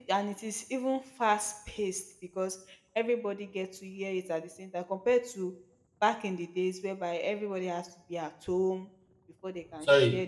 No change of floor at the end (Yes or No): No